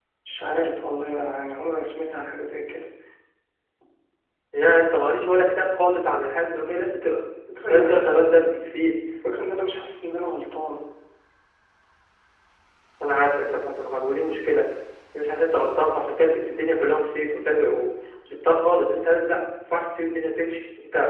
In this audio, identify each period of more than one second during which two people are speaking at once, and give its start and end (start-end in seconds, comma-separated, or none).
none